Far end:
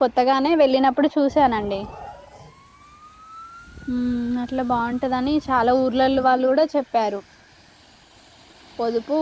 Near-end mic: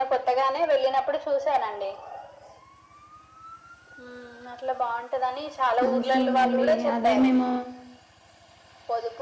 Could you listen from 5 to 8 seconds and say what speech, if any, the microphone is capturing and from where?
both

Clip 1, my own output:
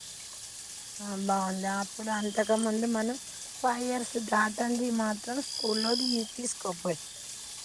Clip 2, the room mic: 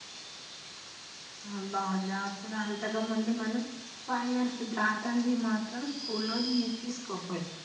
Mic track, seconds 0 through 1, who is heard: neither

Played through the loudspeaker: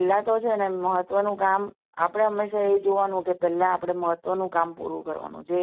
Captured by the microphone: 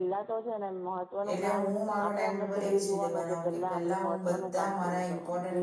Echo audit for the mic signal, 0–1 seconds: echo only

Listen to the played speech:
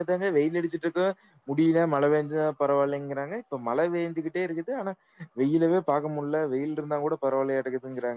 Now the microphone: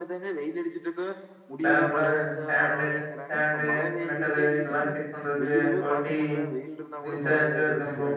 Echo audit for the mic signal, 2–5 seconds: both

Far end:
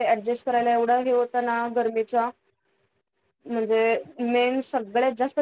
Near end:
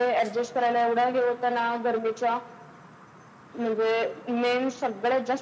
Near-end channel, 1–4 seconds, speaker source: echo only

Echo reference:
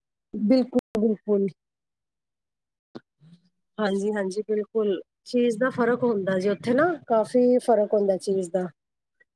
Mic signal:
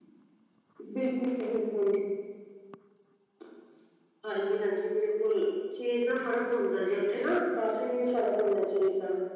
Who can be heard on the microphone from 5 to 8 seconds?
echo only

